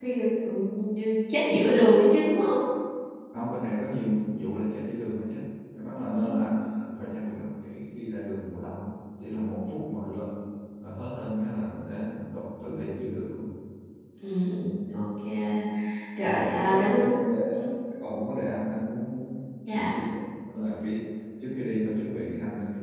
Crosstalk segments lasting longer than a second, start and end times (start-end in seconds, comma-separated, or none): 16.4-17.6